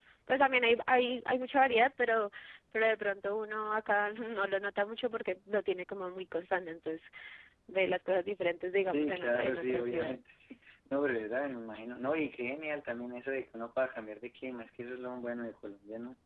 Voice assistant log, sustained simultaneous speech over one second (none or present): present